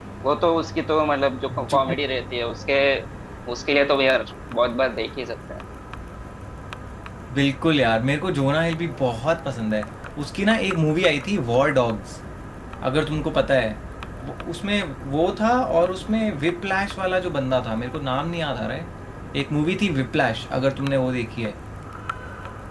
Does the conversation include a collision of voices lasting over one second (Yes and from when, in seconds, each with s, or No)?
No